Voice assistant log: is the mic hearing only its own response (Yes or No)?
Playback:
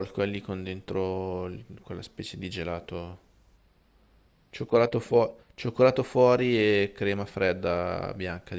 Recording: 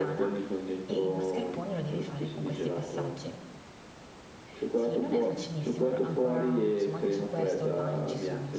No